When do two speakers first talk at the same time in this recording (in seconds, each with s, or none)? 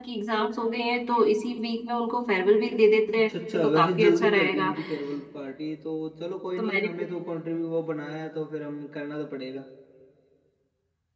3.2 s